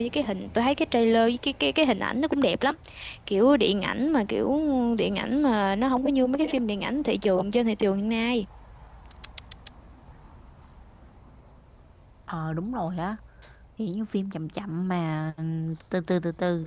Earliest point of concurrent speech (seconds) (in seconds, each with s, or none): none